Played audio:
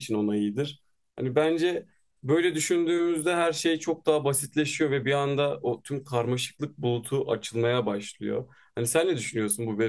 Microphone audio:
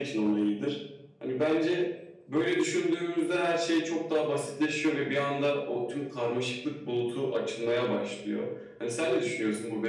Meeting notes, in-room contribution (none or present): none